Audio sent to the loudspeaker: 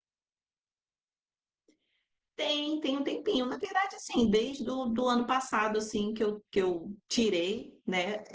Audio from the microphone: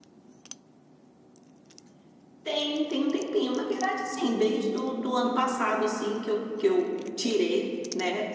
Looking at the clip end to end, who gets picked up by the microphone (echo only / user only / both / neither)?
echo only